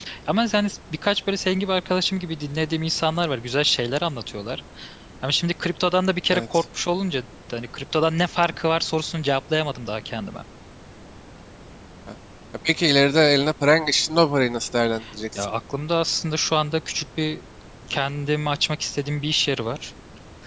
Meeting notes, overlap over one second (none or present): none